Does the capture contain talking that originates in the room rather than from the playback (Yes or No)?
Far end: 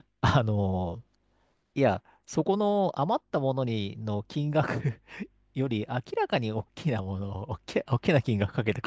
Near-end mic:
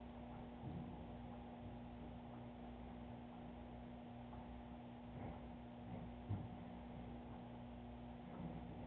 No